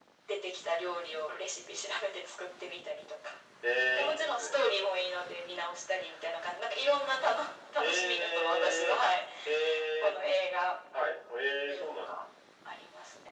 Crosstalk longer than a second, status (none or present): present